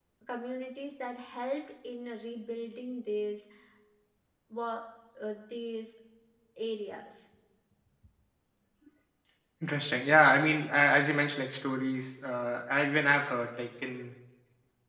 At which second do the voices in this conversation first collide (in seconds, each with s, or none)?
none